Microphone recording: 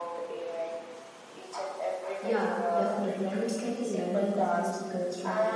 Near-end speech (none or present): present